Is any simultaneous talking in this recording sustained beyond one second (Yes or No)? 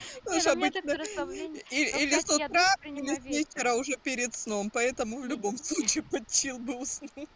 Yes